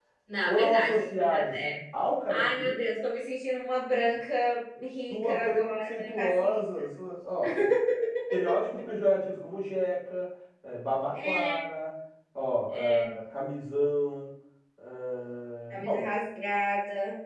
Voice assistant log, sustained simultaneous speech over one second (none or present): present